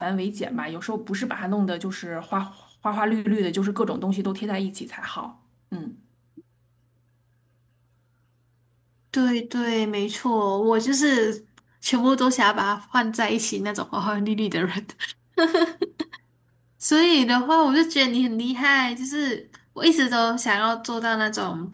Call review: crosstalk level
none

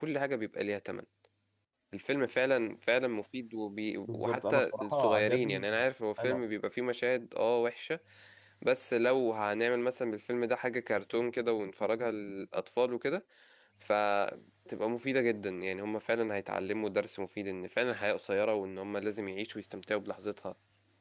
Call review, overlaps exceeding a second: present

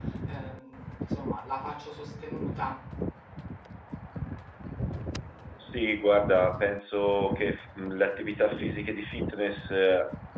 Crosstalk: none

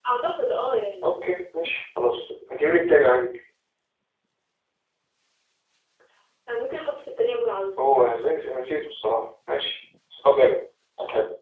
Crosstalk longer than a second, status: none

